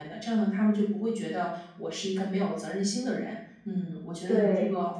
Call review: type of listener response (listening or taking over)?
listening